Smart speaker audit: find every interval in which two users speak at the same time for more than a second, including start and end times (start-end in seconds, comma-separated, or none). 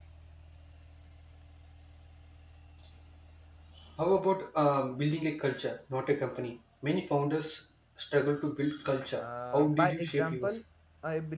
9.2-10.6